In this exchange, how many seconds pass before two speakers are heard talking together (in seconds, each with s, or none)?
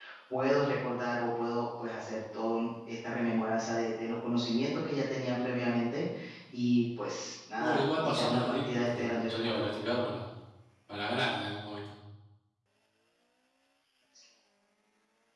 7.6 s